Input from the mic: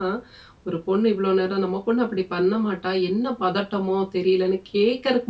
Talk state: user only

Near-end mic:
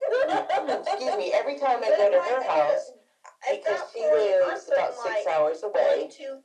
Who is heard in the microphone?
echo only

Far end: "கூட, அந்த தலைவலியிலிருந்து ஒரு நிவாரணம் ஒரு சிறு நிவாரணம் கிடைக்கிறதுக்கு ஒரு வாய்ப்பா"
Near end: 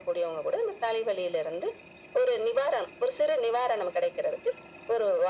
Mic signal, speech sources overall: echo only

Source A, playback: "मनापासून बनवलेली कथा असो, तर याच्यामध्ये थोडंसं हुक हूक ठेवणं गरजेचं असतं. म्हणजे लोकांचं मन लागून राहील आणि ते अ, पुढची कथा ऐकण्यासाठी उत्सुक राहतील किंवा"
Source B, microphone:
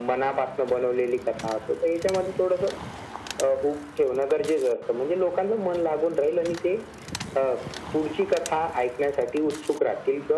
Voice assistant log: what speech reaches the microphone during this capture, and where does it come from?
echo only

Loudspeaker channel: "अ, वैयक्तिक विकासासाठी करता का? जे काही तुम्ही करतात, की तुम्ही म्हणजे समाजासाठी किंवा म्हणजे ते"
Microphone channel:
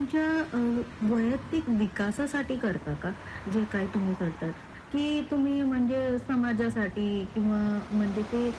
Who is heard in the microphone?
echo only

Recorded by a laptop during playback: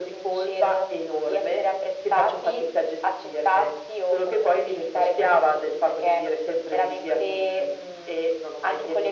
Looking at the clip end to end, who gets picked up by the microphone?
echo only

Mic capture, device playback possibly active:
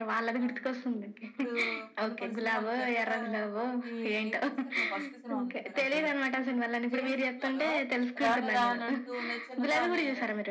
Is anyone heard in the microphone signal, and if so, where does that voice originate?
both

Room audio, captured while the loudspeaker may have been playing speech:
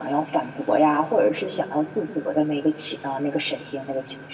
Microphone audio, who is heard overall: echo only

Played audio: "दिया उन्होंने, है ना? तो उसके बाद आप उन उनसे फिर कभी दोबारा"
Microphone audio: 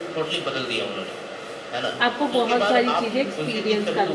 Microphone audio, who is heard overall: both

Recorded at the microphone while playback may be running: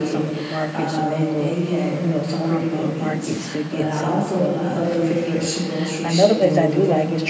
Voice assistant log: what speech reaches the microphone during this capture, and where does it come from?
both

